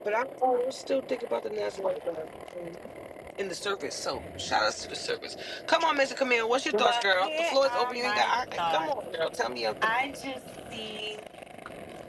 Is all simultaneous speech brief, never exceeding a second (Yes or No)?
No